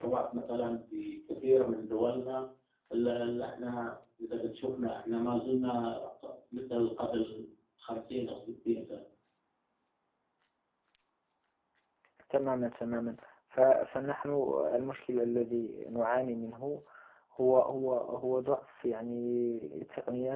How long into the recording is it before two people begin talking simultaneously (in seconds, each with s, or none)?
none